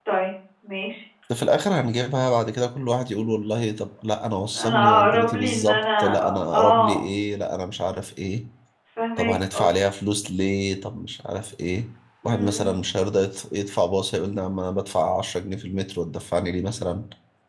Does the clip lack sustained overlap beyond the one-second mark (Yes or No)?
No